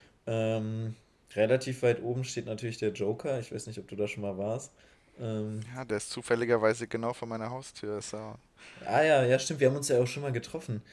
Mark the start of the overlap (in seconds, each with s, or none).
none